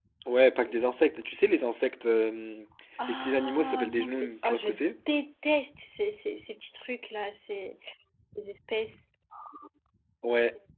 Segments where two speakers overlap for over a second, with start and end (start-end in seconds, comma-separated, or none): 3.1-4.7